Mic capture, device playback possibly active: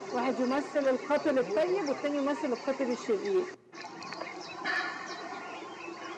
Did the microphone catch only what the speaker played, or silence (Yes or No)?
No